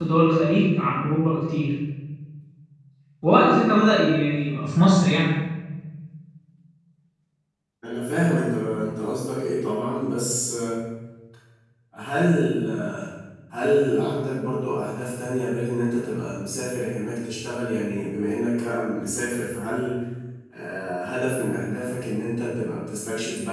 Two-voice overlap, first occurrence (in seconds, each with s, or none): none